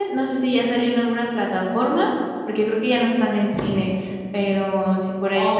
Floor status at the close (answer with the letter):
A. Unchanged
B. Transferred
B